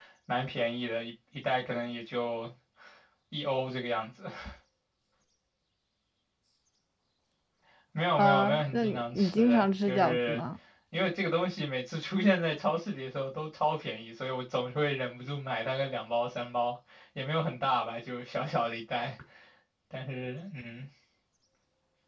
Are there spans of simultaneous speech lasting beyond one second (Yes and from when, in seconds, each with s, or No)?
Yes, from 8.2 s